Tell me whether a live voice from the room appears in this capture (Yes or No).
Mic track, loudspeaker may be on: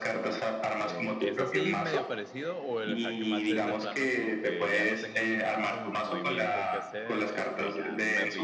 Yes